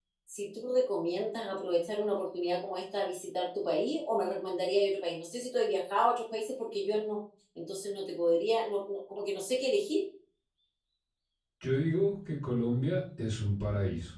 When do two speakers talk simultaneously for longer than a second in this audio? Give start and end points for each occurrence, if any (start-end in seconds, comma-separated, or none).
none